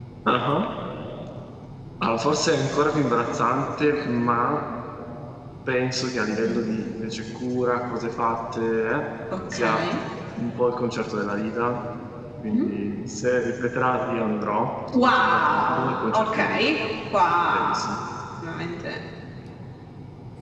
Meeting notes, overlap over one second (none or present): present